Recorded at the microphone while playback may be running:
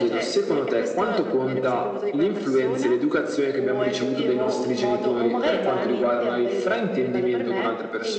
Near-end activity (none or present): none